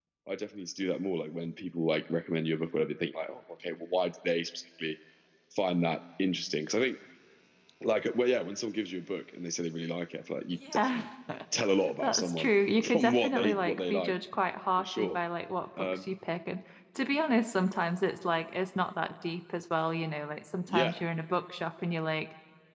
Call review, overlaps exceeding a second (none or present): present